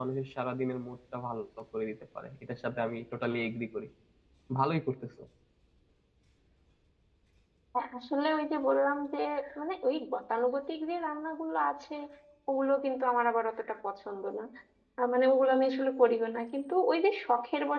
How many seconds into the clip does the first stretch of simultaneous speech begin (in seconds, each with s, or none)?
none